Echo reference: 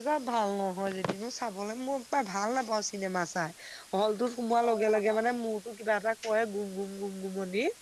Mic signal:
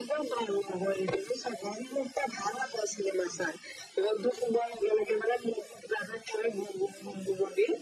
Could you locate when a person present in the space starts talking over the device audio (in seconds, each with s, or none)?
none